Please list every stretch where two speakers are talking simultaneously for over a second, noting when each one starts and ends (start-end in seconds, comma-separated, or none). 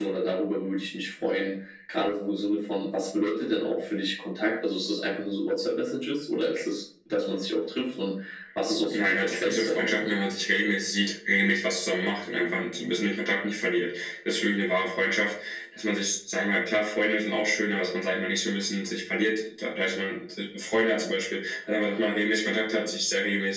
8.9-10.1